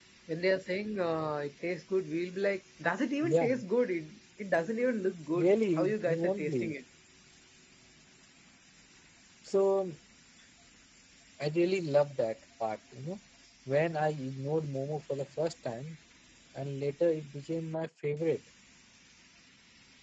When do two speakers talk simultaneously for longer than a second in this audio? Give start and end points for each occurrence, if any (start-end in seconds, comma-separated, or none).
5.4-6.7